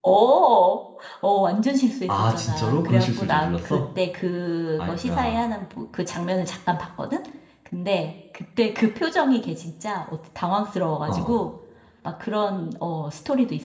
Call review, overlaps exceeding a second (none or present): present